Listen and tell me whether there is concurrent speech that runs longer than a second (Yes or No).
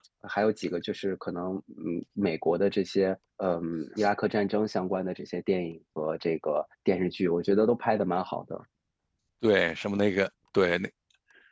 No